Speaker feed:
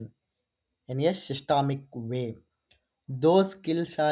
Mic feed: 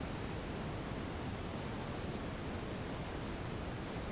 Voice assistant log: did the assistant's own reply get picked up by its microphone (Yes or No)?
No